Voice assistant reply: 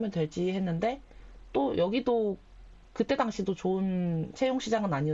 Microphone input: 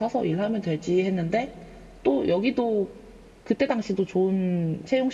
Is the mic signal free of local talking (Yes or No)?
Yes